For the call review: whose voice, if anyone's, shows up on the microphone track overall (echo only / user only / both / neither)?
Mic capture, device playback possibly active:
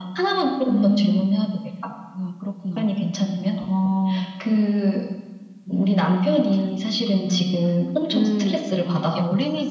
both